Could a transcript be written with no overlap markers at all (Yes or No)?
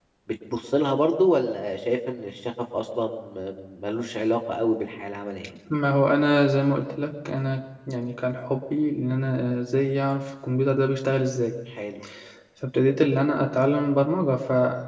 Yes